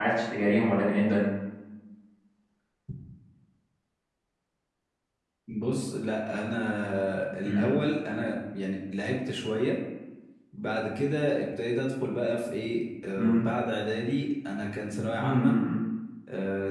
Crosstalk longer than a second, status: none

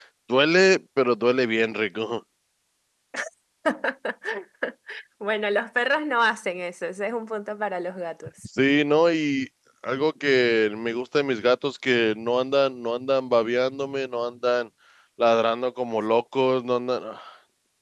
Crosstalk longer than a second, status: none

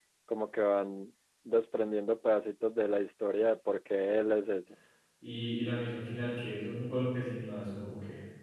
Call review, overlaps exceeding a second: none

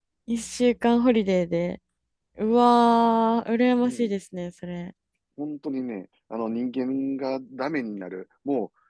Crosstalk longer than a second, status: none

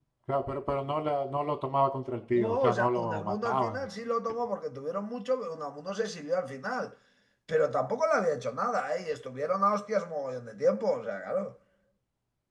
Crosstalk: present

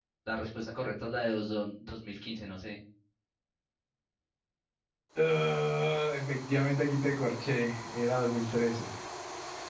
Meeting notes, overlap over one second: none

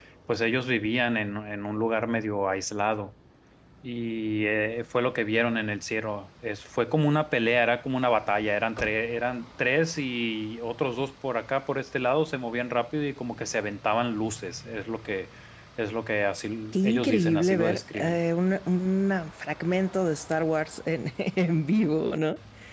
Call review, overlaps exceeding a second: present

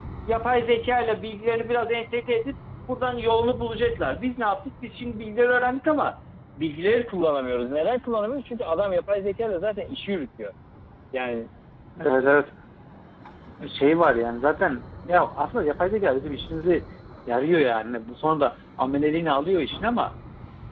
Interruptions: none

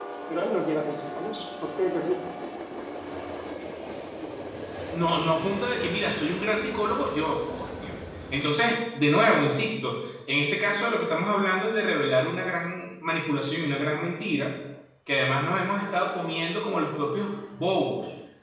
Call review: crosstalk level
none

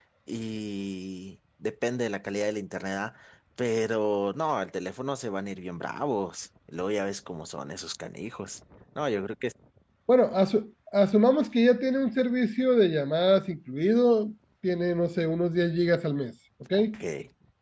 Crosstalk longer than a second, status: none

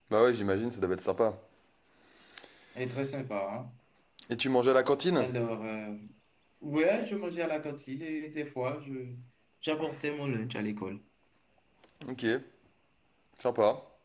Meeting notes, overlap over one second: none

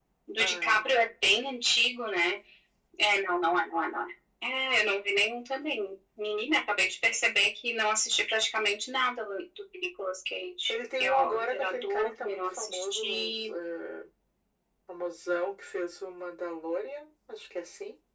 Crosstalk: present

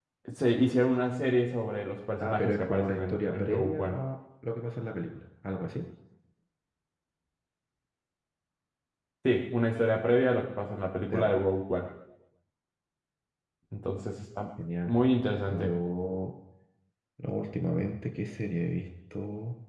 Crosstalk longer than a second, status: present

